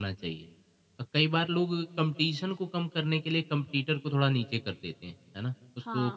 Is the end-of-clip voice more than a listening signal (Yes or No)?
Yes